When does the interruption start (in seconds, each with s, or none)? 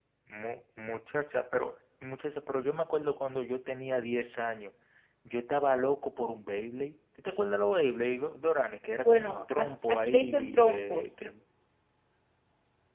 9.0 s